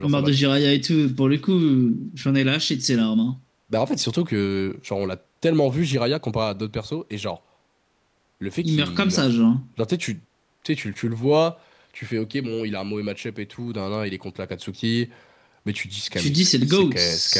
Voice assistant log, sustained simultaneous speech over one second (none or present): present